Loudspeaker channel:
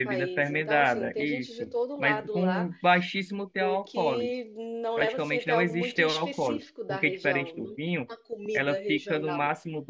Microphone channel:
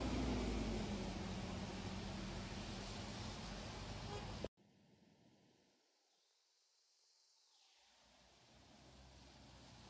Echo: none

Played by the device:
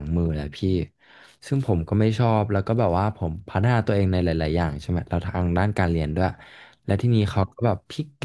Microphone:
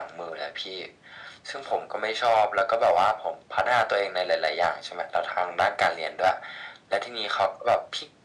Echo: present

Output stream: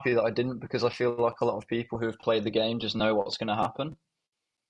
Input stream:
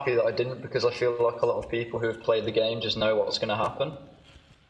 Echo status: present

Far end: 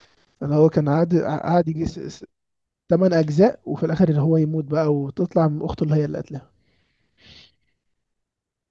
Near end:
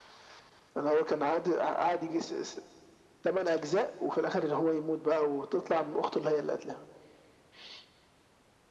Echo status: present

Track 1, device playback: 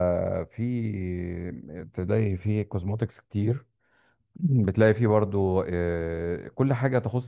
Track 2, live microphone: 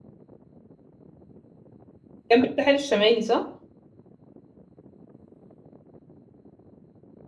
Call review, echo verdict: none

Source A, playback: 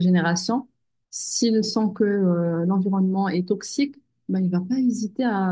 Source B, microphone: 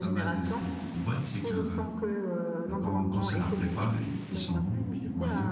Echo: present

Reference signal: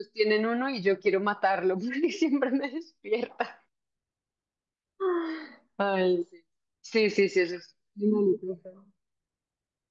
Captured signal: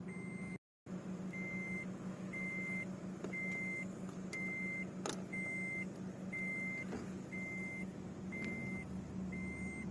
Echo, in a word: none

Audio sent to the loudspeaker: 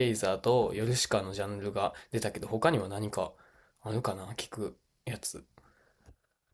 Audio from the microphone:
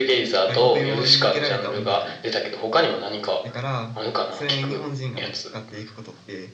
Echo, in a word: present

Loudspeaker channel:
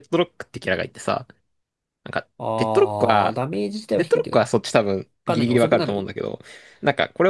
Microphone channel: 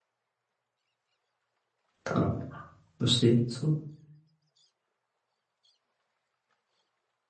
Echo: none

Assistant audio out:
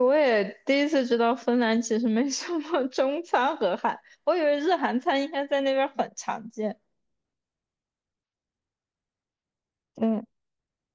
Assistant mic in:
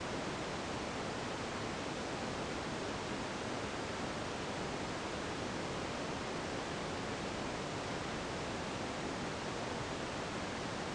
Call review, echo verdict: none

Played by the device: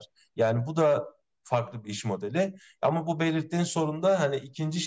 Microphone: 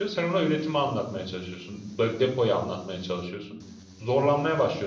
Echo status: none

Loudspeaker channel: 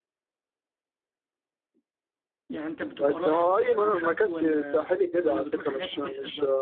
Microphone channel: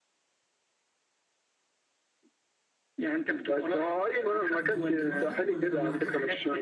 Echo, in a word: present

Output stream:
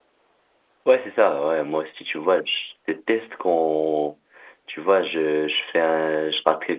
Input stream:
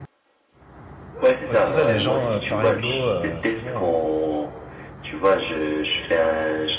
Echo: present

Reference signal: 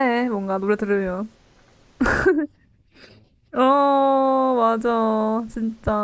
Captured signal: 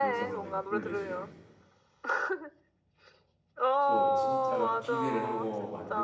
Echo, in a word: present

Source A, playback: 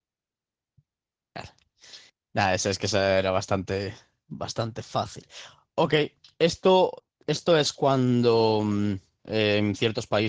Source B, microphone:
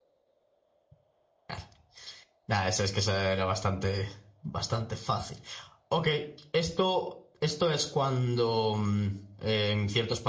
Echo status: present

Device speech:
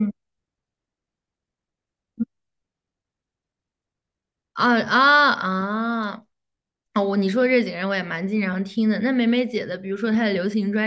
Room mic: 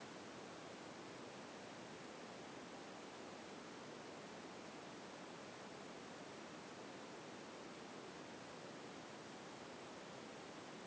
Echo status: none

